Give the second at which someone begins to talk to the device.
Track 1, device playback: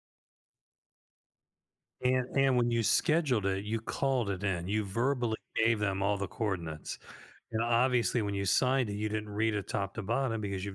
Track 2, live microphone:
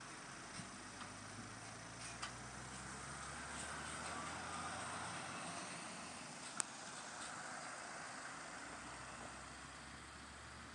none

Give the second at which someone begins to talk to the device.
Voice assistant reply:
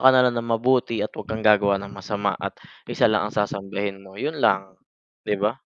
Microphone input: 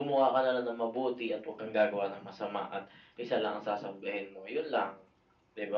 none

